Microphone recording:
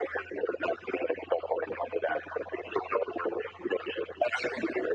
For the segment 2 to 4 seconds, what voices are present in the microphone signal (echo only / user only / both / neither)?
echo only